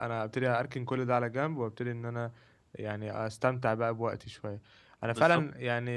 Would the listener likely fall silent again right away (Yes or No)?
Yes